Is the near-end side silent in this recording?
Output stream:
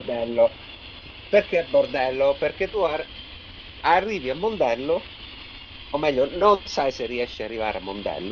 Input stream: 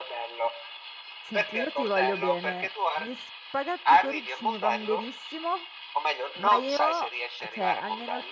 No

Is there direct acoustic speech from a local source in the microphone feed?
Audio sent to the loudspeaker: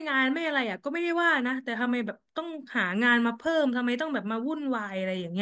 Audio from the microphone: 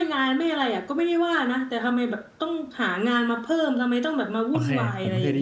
Yes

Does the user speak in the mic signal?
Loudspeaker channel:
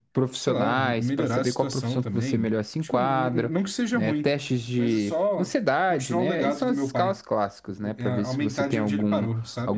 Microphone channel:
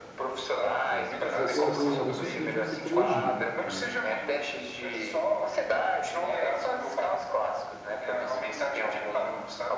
Yes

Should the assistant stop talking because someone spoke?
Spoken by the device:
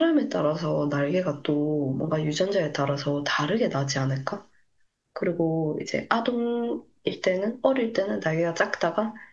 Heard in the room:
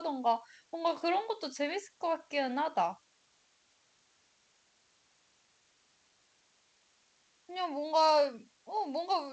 Yes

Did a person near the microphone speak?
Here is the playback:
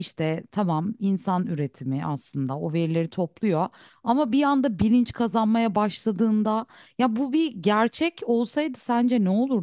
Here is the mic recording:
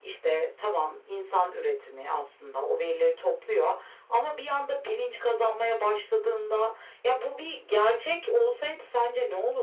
No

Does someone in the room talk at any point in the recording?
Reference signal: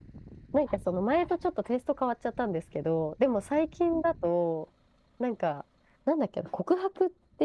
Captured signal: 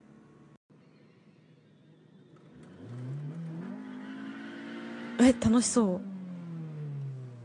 Yes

